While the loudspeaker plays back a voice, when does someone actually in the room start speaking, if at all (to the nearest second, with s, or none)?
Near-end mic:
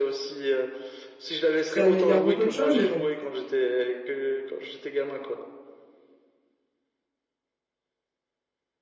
2 s